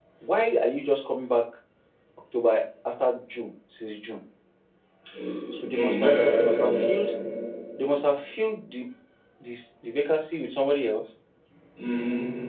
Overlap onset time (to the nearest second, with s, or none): 6 s